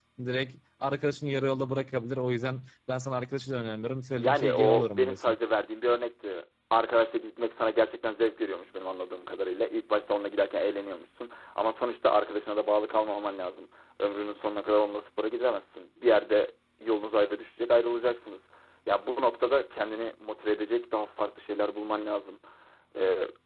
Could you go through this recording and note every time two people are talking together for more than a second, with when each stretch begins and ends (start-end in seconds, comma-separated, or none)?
4.1-5.3